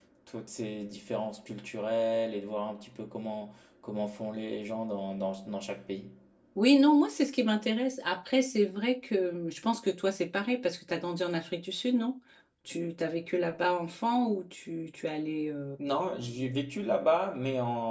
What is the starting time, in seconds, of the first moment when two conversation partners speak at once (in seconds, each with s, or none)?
none